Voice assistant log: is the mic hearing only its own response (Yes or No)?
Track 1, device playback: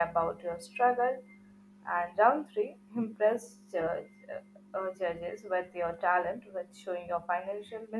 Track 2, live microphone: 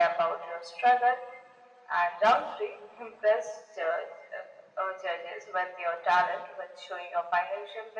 Yes